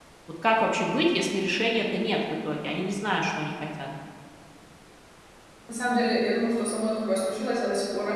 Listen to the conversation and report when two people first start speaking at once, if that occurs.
none

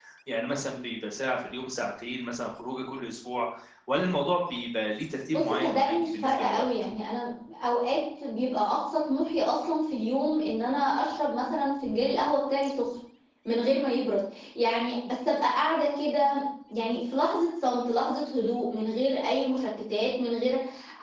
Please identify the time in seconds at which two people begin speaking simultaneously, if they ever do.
5.3 s

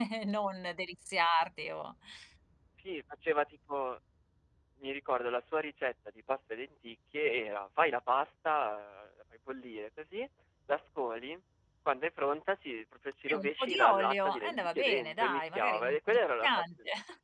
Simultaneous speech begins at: 13.3 s

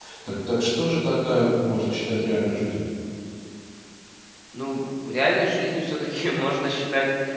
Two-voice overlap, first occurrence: none

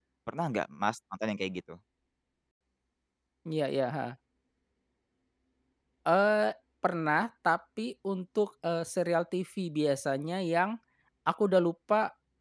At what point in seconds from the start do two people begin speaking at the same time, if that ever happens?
none

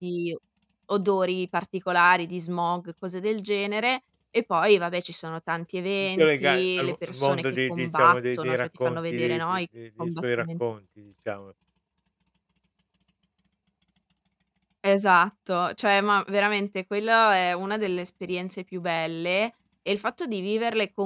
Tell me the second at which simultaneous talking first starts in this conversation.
6.2 s

